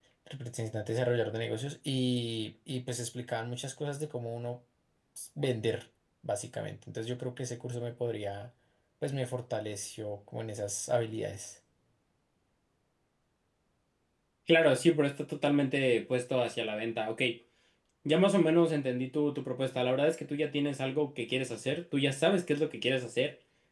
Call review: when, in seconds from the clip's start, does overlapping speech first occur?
none

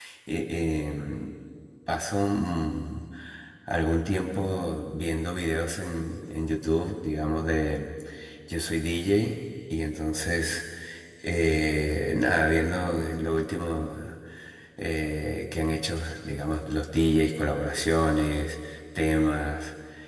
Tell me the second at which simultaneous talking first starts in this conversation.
none

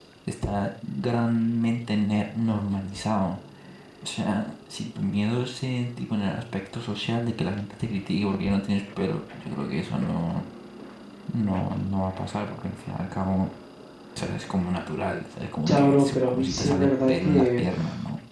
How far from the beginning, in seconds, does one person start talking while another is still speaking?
16 s

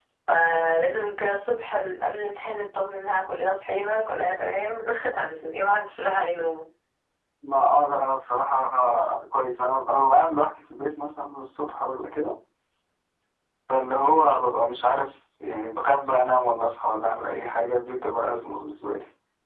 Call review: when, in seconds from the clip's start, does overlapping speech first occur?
none

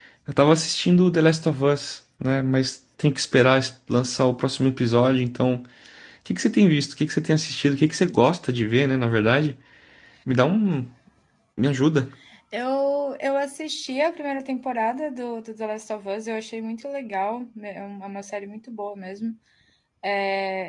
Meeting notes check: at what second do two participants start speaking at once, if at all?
none

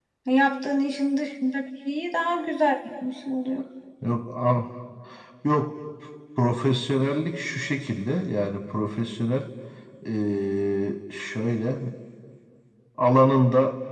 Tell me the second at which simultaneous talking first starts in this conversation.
none

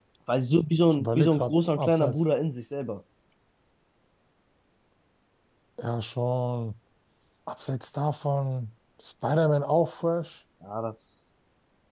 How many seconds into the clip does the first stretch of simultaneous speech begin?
1 s

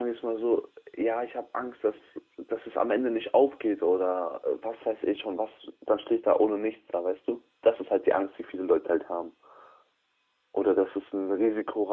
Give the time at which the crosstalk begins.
none

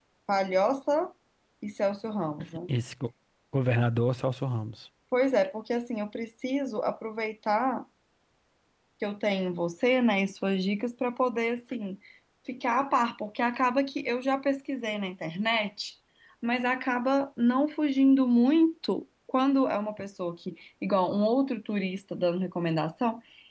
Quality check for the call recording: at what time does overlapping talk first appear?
none

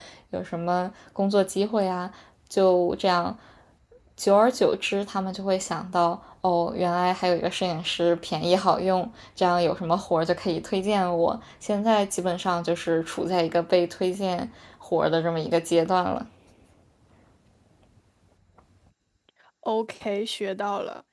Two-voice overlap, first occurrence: none

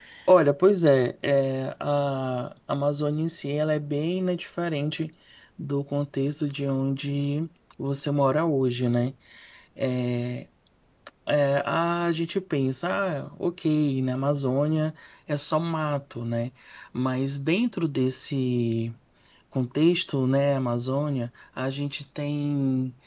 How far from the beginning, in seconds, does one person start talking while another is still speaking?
none

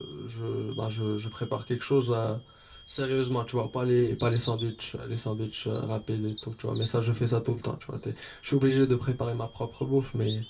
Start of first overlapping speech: none

